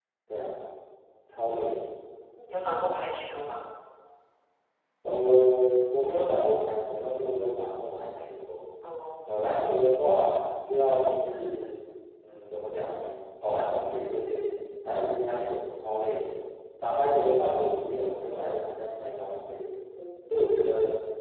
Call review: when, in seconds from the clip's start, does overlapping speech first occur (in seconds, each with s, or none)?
none